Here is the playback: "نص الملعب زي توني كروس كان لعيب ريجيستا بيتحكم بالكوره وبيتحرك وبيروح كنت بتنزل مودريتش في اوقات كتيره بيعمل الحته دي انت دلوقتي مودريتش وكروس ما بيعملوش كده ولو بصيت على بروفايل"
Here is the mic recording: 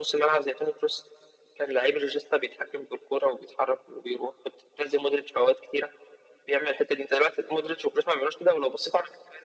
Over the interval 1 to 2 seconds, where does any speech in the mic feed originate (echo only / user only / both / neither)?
echo only